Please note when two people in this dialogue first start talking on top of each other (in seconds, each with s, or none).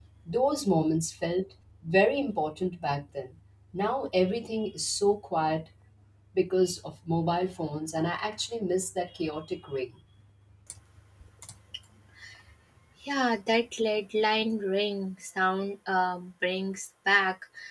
none